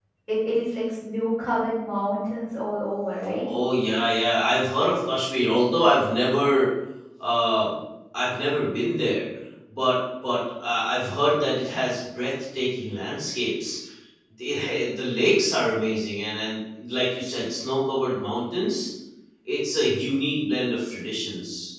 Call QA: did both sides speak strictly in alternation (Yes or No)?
Yes